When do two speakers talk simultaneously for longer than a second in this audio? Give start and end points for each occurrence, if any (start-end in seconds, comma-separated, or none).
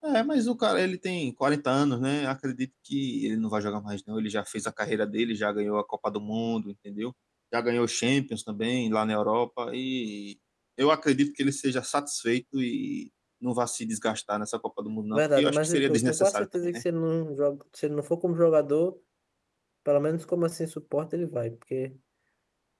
15.1-16.8